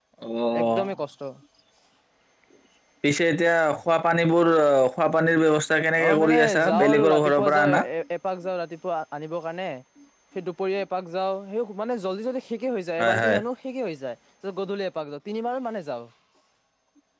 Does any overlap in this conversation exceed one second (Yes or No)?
Yes